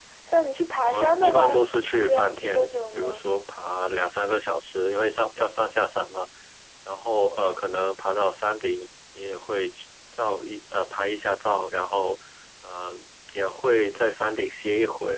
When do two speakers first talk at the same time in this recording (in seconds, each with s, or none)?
0.8 s